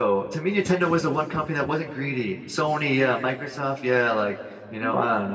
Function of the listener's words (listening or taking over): taking over